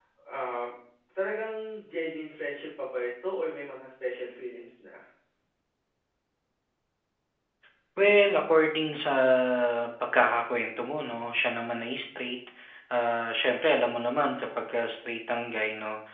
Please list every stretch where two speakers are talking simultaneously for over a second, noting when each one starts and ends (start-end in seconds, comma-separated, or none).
none